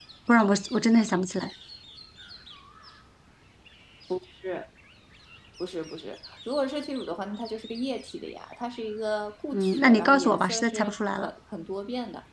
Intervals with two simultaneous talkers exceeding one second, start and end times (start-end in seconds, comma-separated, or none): 9.5-11.3